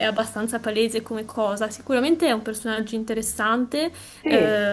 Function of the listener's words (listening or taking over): listening